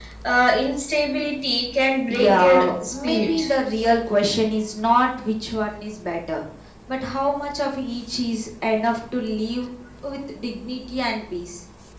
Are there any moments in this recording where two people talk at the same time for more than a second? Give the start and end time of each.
2.1-3.4

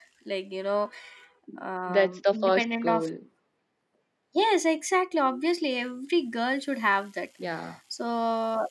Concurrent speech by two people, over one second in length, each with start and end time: 1.9-3.1

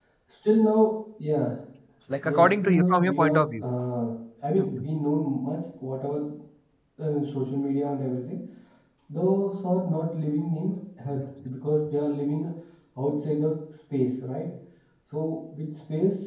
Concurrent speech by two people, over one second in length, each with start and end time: 2.2-3.6

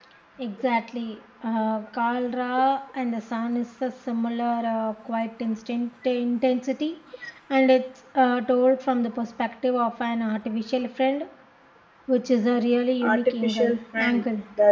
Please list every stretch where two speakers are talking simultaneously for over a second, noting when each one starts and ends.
13.0-14.2

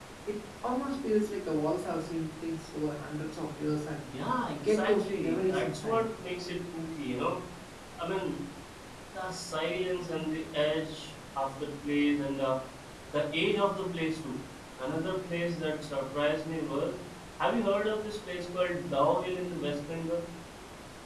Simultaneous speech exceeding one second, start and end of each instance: 4.7-6.0

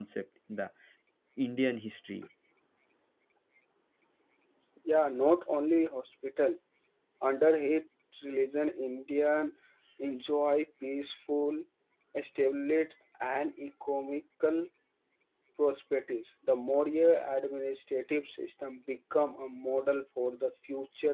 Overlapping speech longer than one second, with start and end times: none

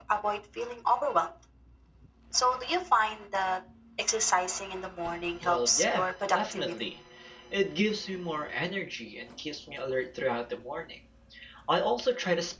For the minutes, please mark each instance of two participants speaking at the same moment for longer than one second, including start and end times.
5.4-6.7

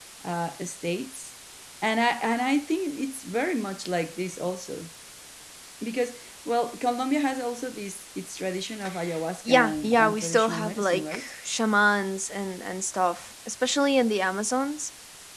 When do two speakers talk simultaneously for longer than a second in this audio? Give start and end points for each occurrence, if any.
9.5-11.3

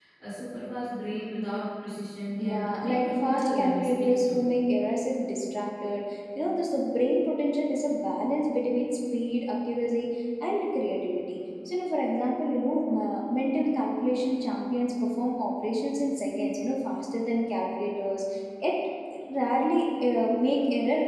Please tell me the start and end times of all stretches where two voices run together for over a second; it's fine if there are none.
2.4-4.4

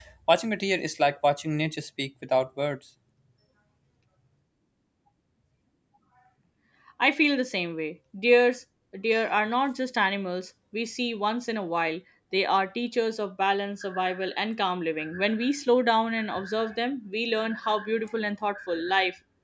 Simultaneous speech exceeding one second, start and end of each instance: none

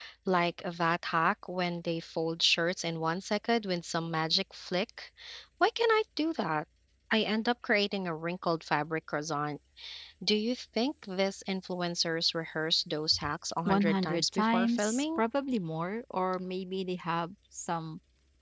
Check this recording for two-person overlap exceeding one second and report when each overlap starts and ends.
13.7-15.2

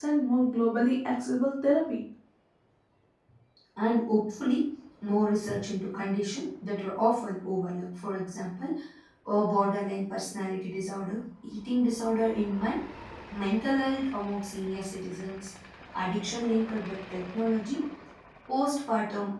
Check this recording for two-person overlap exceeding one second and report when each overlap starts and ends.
none

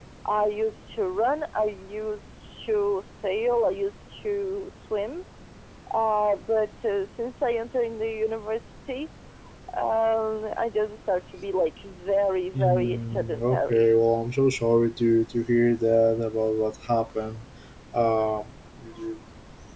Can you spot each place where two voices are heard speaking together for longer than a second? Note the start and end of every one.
12.5-13.9

